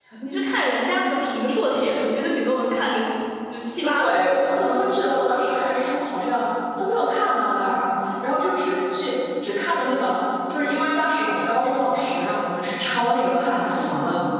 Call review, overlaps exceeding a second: none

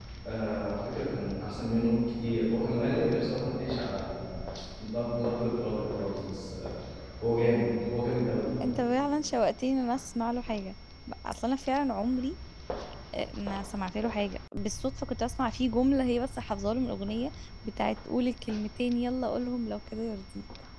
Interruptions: none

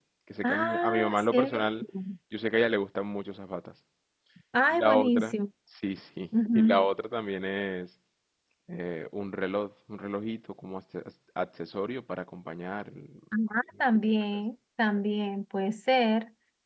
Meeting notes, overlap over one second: present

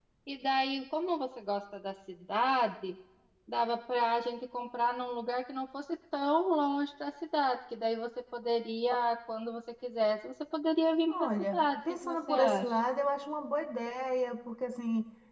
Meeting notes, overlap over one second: present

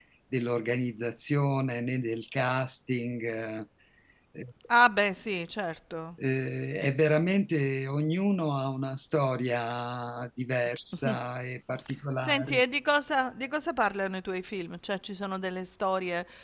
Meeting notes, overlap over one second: none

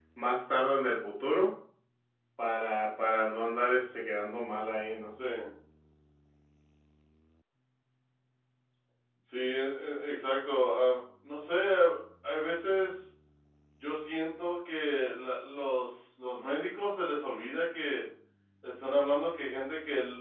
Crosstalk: none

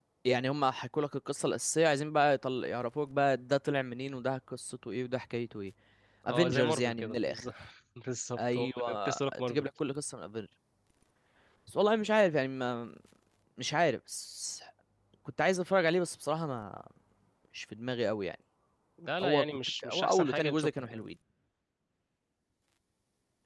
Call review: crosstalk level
present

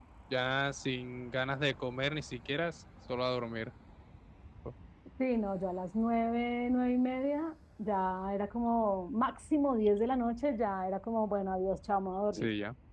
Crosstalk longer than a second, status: none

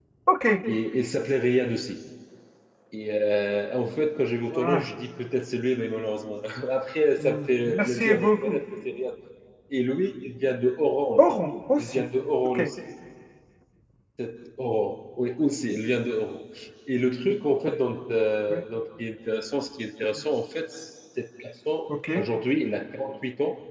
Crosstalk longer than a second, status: present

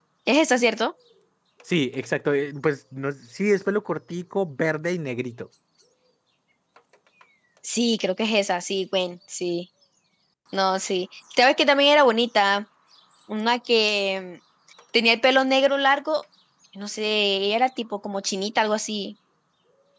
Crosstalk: none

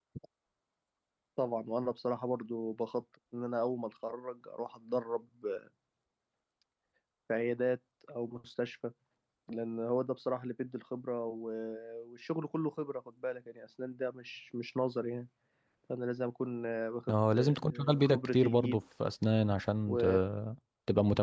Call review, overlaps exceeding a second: present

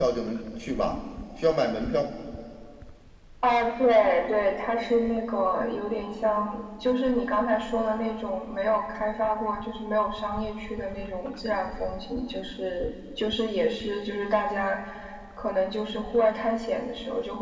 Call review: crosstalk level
none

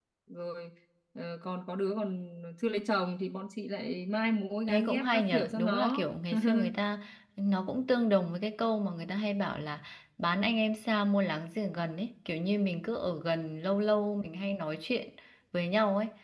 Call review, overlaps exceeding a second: present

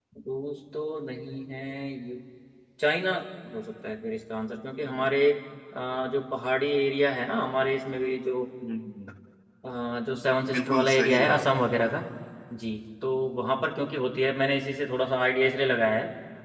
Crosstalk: present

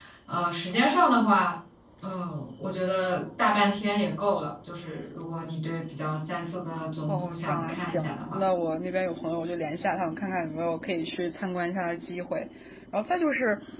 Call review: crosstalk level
present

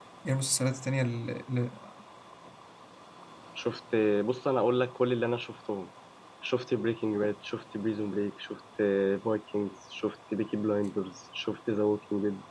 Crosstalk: none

